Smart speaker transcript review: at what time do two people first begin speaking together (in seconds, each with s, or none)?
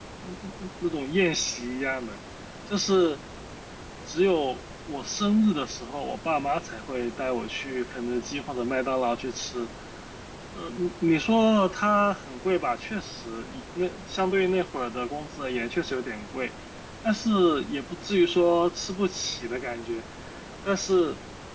none